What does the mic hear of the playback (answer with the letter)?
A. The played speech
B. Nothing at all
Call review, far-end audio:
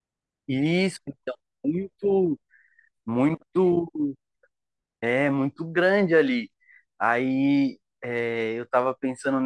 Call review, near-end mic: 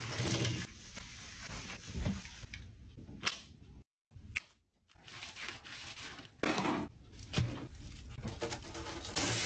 B